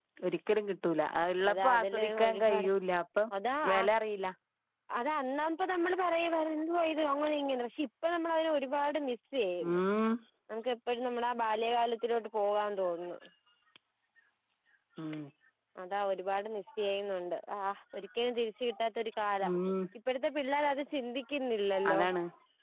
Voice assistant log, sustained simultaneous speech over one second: present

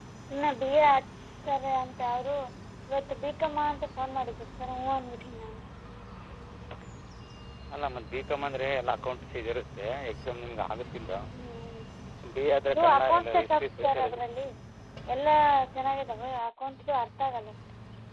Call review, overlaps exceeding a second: present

